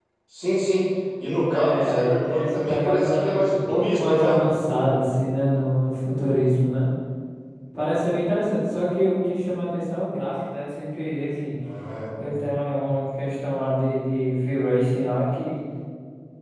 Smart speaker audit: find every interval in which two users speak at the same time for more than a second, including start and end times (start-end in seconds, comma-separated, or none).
1.4-4.4